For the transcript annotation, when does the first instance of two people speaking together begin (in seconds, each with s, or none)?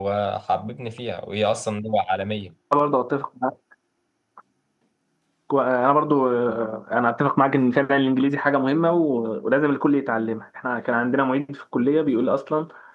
none